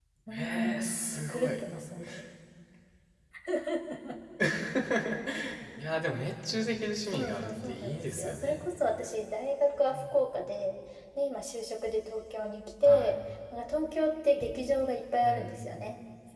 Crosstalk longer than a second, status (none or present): present